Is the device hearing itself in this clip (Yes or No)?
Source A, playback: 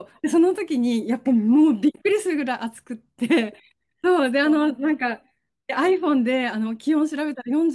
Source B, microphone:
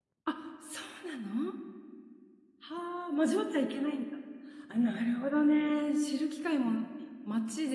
No